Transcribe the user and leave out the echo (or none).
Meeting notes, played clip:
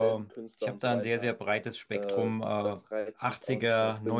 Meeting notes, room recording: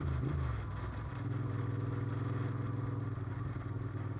none